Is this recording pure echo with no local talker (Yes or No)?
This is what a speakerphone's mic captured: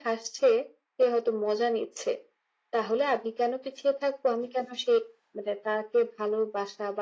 Yes